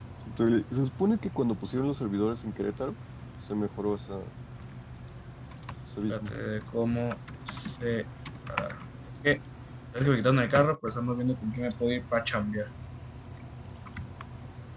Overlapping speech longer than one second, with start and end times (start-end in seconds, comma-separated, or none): none